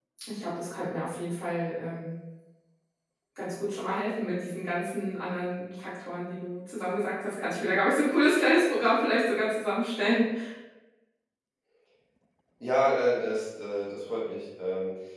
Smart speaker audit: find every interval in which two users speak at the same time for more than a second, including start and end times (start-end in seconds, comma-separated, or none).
none